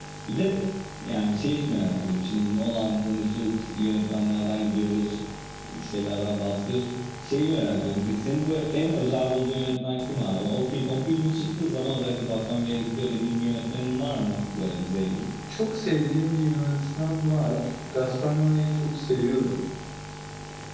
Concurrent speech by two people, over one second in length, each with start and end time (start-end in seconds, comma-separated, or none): none